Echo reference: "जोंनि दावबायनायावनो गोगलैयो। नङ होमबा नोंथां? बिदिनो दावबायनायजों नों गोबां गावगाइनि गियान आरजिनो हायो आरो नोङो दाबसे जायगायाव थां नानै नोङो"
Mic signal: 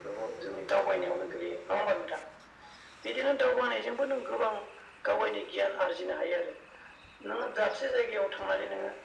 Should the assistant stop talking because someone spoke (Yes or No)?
No